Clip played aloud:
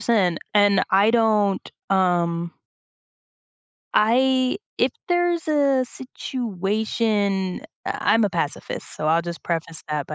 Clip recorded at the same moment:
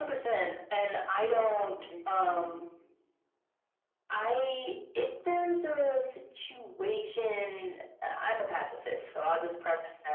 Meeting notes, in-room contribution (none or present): present